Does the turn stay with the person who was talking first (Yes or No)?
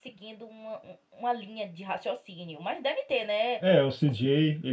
No